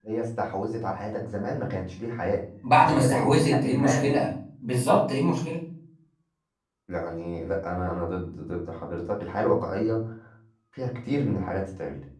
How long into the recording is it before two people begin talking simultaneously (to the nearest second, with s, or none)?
3 s